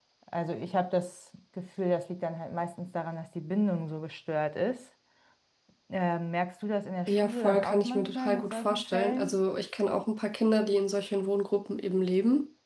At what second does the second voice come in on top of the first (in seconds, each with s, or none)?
7.1 s